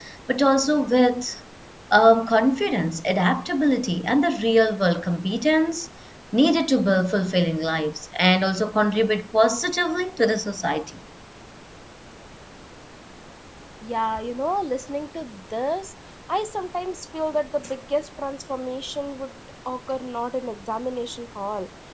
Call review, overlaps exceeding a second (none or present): none